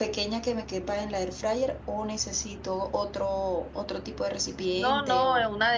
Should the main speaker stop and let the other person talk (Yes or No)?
Yes